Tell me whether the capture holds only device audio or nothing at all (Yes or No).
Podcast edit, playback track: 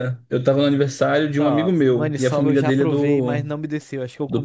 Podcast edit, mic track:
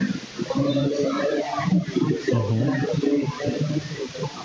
No